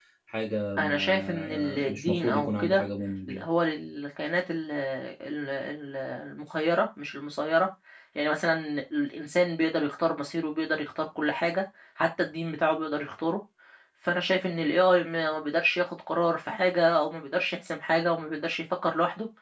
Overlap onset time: 0.8 s

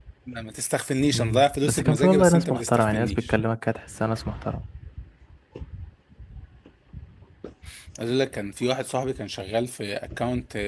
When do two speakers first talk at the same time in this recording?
1.1 s

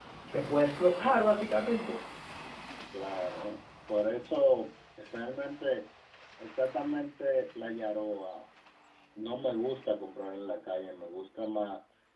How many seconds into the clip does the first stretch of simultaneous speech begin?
none

